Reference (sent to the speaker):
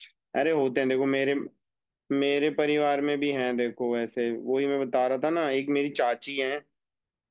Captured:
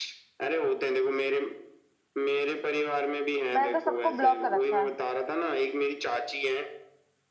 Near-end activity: present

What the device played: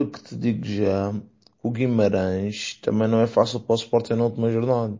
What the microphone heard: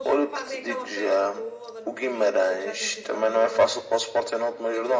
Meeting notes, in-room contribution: present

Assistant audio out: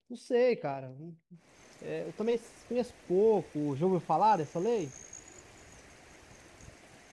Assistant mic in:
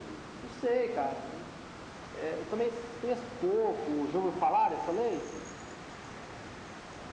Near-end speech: none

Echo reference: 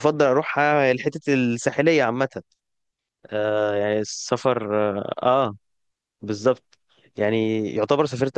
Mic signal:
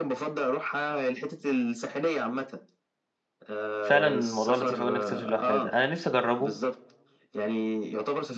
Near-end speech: present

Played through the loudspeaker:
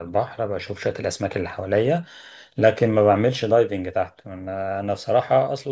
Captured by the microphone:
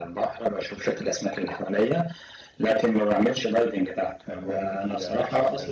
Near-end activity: present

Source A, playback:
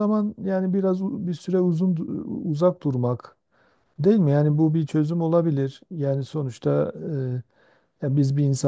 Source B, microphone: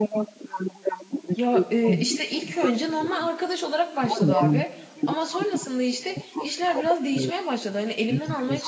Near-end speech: present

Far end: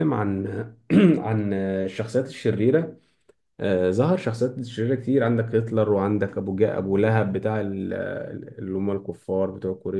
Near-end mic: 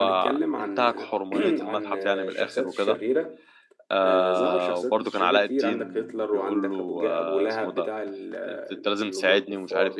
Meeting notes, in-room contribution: present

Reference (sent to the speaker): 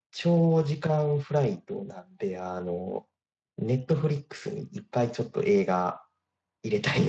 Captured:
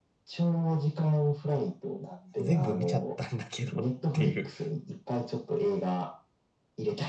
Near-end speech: present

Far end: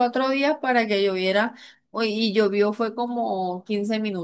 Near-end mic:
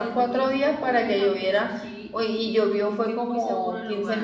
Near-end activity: present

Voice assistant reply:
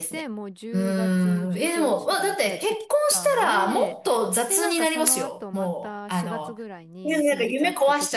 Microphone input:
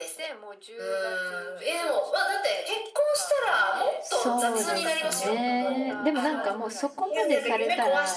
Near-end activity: present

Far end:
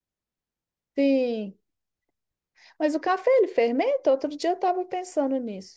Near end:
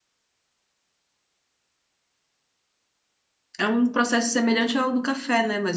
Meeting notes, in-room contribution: present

